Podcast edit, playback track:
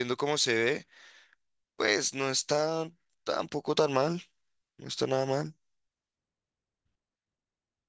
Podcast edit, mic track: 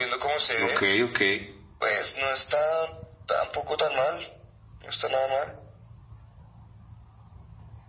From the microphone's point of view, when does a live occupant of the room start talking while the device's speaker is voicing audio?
1 s

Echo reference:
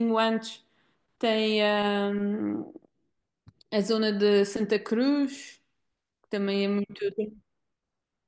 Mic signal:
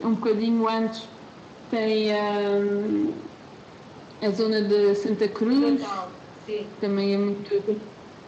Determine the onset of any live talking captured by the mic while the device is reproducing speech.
5 s

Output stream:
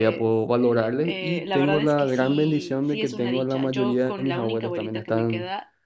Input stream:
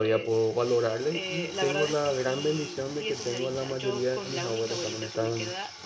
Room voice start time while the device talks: none

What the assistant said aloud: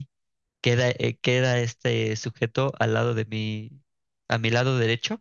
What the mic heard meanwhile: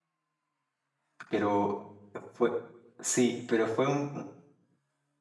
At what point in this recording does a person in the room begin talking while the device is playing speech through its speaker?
1 s

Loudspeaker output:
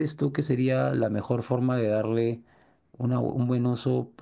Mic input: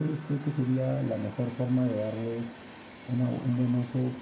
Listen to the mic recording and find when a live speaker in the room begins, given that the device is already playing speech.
none

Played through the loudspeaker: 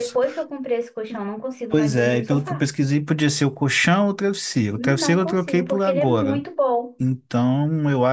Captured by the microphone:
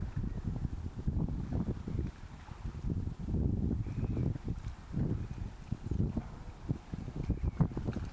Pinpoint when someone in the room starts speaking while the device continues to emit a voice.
none

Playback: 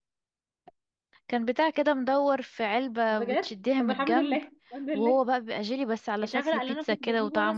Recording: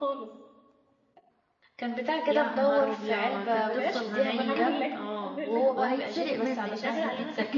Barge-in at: 2 s

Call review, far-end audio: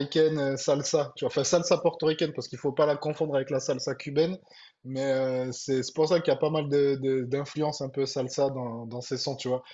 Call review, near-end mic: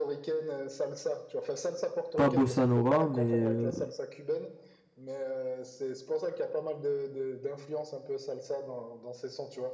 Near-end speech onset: 2 s

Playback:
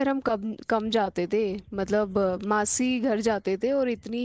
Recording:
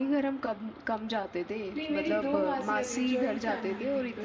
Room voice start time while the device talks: 2 s

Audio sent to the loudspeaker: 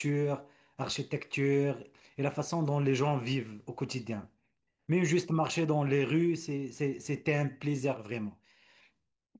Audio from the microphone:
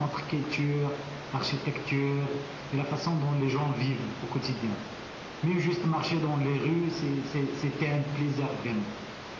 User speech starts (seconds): none

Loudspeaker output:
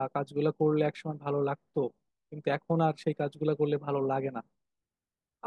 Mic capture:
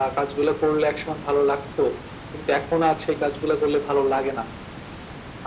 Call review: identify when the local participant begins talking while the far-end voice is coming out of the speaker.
none

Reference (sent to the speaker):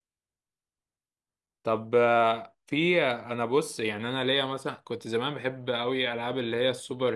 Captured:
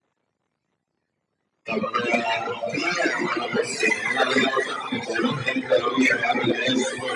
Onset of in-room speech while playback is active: none

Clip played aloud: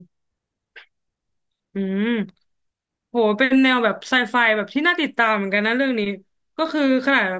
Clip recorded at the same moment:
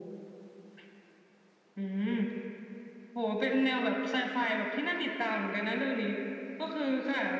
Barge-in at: none

